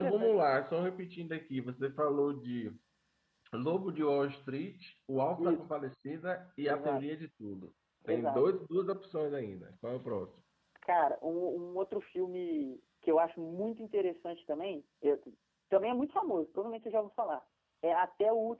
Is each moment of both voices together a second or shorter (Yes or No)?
Yes